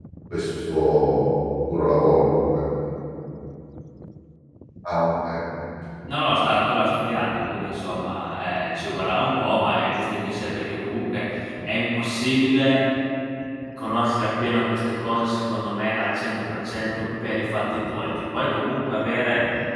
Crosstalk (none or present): none